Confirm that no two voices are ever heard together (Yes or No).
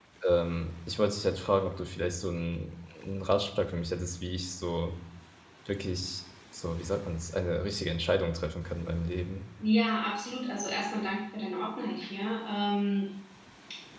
Yes